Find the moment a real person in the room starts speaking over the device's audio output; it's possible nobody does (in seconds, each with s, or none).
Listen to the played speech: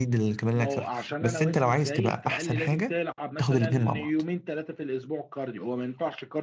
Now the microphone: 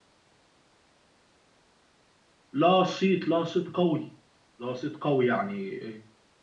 2.5 s